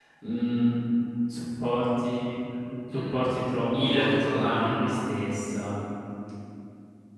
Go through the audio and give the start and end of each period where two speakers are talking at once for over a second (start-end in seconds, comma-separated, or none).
3.8-5.0